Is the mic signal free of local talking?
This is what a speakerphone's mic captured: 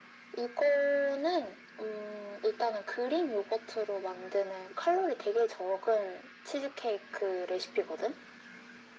Yes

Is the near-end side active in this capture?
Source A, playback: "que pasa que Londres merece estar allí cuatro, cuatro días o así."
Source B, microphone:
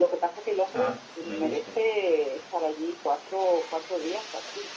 Yes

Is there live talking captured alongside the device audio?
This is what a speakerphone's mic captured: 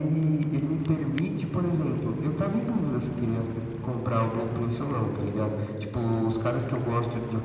No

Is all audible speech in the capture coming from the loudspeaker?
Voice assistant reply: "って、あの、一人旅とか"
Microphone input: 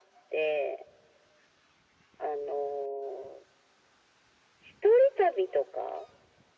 Yes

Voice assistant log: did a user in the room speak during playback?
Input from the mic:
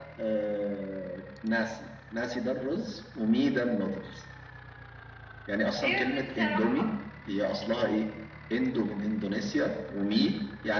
Yes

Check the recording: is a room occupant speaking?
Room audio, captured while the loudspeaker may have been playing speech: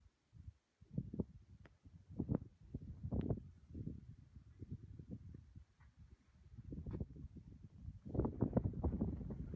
No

